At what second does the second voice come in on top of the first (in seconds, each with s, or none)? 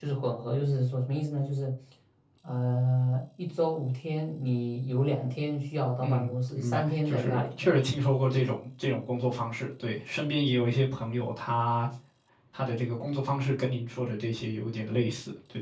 6.0 s